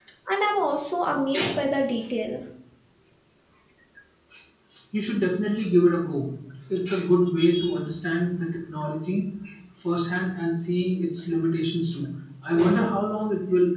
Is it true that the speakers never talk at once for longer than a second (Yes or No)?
Yes